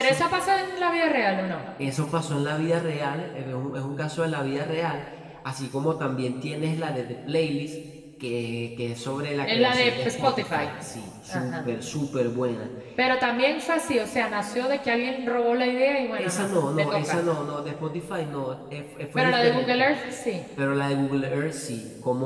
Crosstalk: present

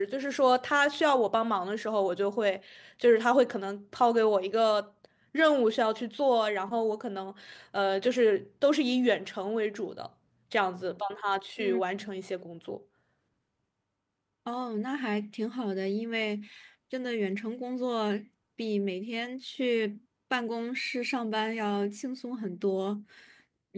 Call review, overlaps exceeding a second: none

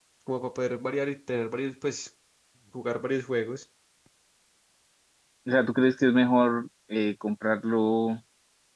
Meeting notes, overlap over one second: none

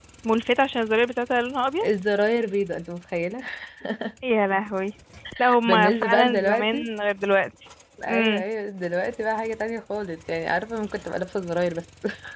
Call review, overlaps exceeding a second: present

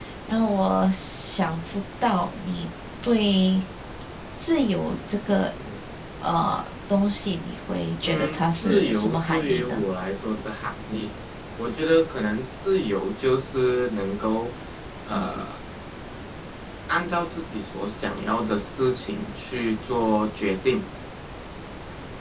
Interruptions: present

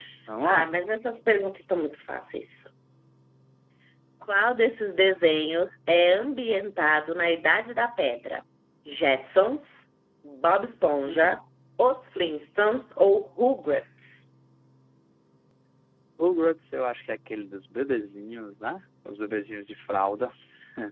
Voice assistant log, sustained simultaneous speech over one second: none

